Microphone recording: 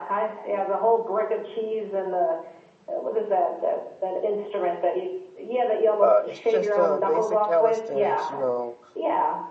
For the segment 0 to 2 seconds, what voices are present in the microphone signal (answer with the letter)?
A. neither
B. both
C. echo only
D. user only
C